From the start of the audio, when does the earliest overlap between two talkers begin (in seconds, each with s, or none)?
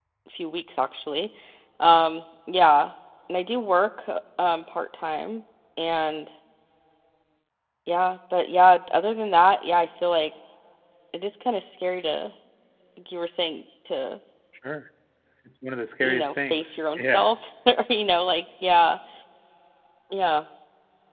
16.0 s